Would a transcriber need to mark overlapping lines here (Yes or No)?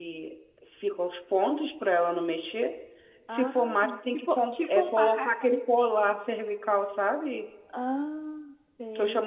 Yes